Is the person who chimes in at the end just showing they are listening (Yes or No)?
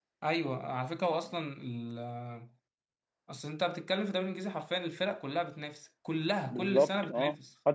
No